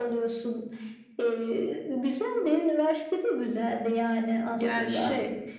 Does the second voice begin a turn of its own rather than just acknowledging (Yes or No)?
Yes